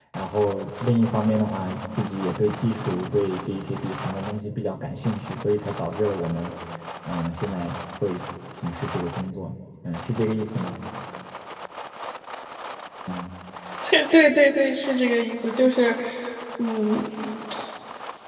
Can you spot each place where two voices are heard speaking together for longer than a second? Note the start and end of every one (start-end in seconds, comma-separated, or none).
none